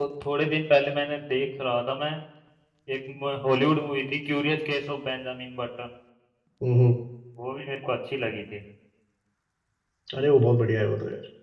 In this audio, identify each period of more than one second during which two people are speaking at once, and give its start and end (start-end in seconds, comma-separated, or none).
none